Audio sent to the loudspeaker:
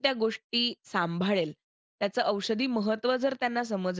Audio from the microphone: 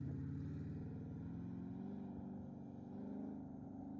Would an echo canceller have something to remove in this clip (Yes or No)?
No